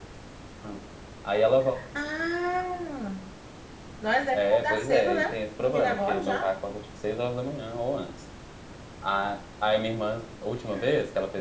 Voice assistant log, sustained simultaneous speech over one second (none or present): present